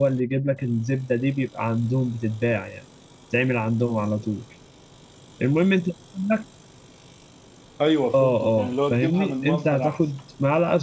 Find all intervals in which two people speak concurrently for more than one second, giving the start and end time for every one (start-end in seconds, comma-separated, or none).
8.1-10.0